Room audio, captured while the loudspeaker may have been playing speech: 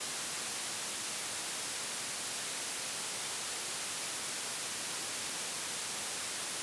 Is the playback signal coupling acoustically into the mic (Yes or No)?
No